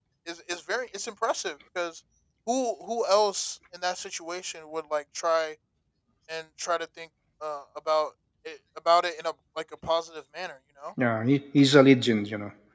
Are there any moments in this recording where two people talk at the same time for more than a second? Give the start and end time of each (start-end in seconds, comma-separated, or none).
none